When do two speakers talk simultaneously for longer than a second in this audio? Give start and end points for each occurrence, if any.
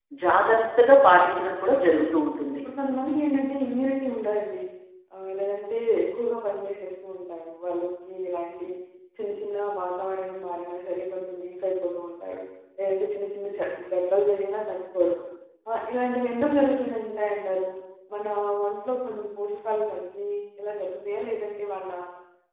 0.9-2.1

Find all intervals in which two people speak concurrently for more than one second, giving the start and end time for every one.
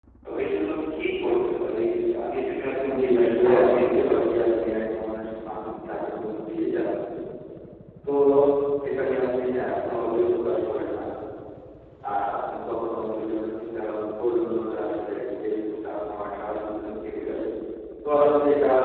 3.0-4.2

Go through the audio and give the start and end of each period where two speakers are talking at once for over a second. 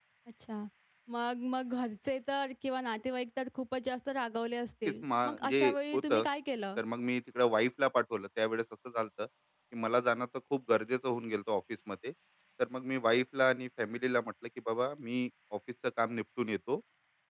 4.8-6.2

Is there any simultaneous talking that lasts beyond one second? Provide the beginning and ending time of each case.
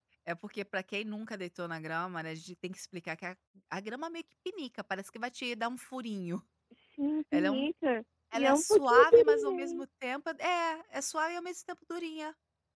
8.3-9.8

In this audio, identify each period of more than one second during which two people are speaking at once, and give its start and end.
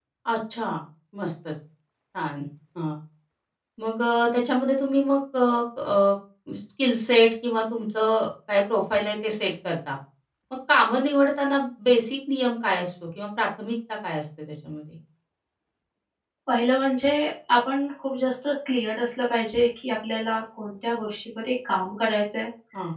none

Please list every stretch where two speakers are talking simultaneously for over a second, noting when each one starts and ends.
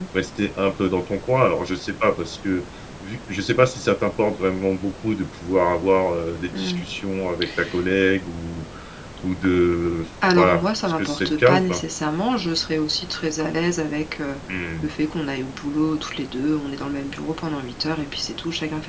10.3-11.8

